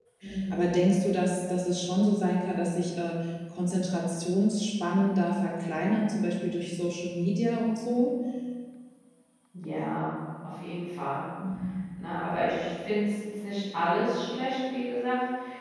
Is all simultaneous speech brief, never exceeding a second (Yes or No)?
Yes